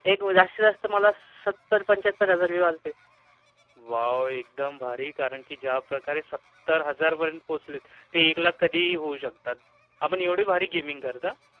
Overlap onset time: none

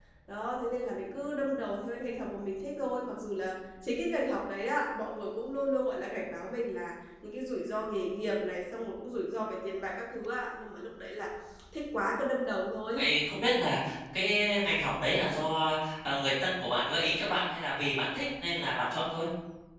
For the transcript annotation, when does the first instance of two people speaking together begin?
none

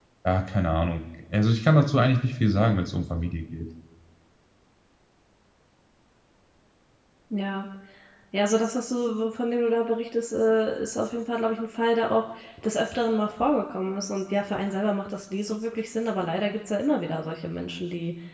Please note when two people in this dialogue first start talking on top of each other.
none

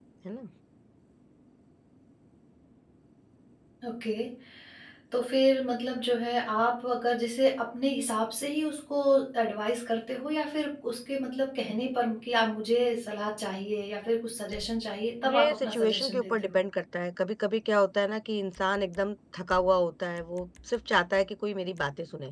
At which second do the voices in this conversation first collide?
15.2 s

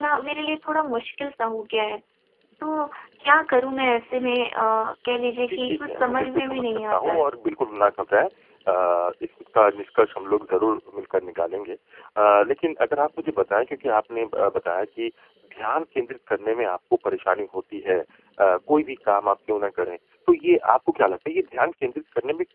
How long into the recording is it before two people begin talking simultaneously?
5.5 s

